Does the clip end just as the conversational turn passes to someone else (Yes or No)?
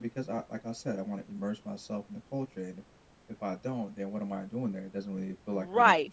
Yes